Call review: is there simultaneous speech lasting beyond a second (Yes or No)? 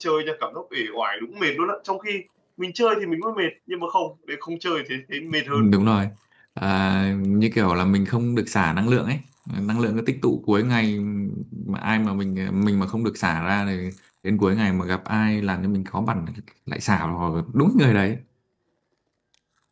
No